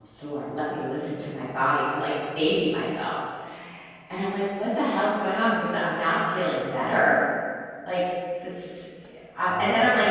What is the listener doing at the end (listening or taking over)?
listening